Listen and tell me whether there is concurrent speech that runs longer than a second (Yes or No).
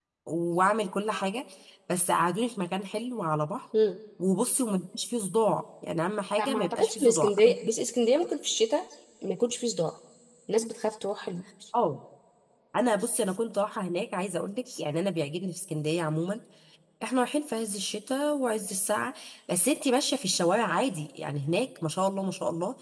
Yes